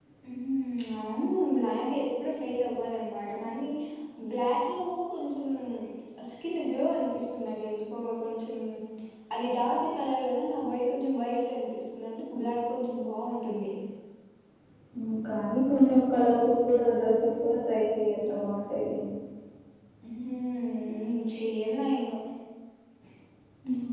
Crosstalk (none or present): none